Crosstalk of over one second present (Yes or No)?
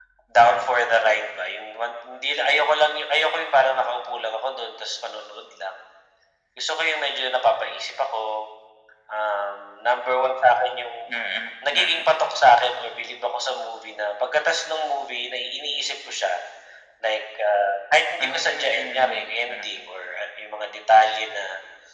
Yes